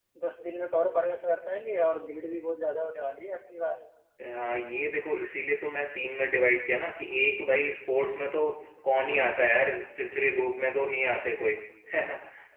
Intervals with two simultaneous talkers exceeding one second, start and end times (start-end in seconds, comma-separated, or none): none